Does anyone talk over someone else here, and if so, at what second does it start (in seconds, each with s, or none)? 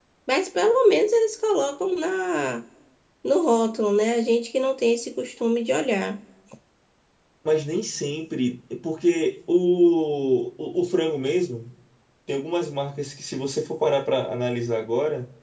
none